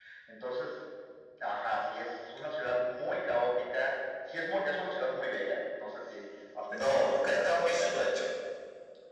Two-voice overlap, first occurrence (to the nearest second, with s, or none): 7 s